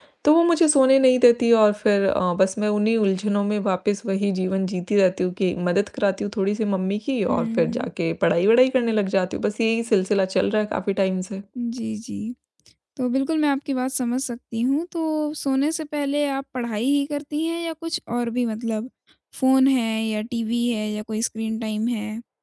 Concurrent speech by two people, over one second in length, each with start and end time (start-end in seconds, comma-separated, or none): none